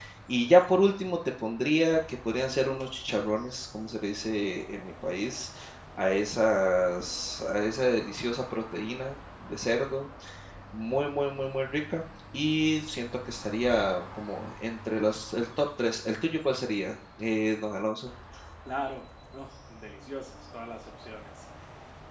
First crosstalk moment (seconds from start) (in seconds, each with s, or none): none